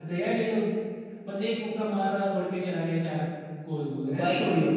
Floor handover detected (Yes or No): Yes